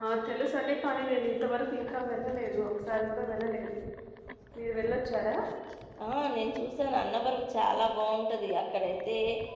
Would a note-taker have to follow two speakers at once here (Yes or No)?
No